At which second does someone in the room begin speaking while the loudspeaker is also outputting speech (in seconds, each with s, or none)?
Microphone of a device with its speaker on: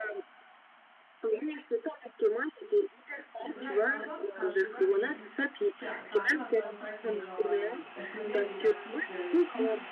3.4 s